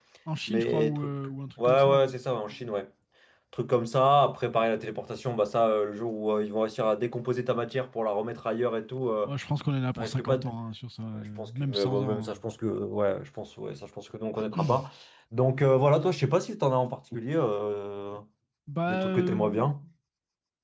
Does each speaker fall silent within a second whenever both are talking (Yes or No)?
No